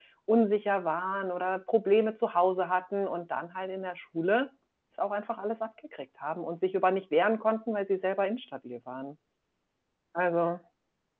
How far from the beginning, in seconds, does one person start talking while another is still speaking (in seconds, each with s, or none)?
none